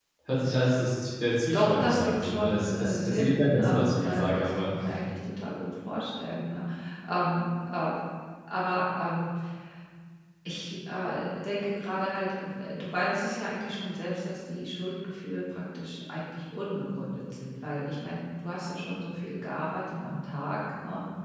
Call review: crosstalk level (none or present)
present